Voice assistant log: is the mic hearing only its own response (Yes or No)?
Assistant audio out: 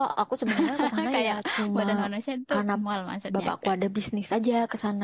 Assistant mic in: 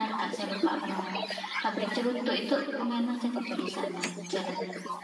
No